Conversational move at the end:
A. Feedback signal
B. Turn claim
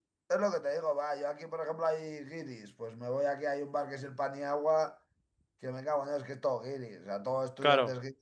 A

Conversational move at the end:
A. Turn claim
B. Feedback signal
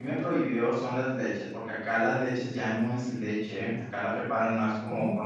B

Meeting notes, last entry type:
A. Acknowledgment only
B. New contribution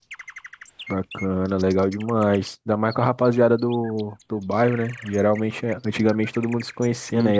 A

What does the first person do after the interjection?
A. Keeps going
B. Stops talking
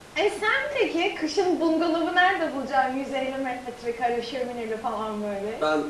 B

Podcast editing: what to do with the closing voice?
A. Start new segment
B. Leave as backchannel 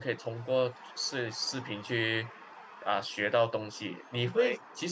B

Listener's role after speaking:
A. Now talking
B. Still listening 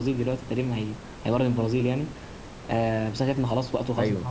B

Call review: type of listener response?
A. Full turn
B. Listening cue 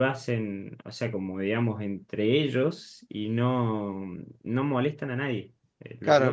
A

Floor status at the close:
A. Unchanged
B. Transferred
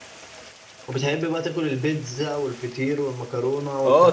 B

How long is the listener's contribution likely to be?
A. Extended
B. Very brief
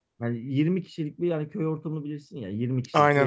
B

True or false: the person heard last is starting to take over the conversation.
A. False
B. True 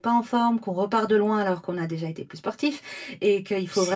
A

